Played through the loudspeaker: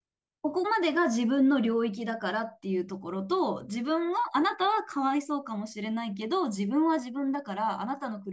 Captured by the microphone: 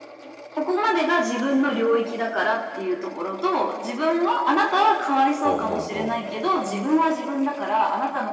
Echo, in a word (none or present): present